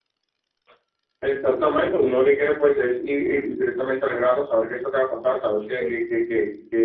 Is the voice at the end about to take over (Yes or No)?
No